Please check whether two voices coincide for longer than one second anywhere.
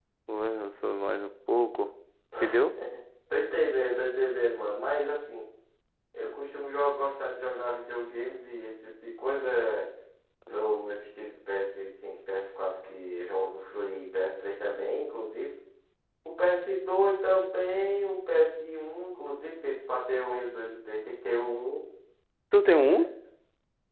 No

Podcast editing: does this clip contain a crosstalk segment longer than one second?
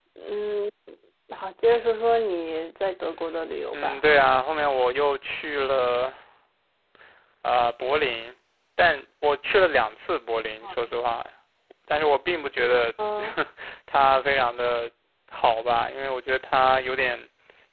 No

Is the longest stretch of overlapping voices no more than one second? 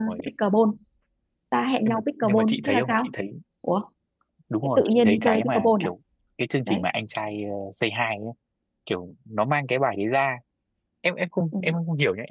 No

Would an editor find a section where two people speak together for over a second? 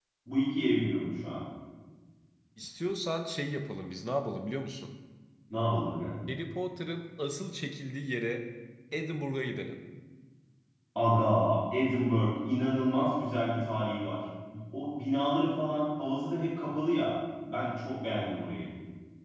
No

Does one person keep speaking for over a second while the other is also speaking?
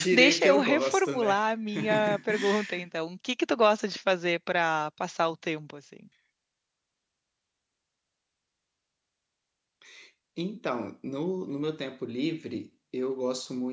Yes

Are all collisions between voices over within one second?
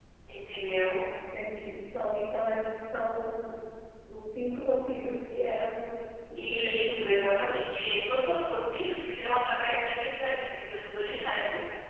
No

